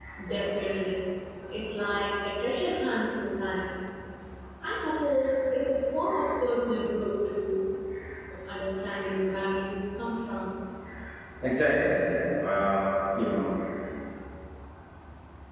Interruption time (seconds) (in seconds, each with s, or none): none